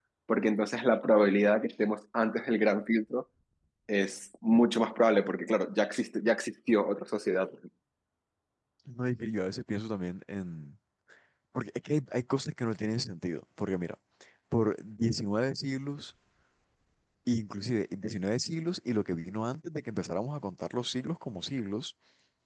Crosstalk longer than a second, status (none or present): none